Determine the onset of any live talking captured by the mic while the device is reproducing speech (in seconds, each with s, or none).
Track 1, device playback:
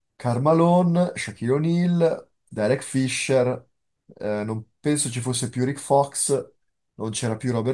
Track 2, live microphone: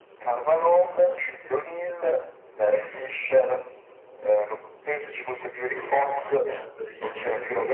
5.8 s